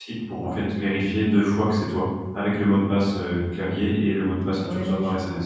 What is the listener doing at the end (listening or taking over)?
taking over